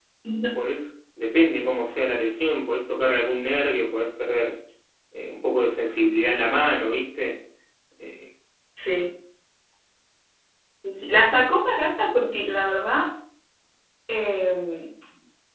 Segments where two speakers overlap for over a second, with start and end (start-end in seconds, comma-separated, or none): none